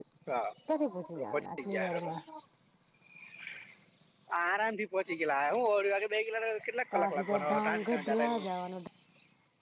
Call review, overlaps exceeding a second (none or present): present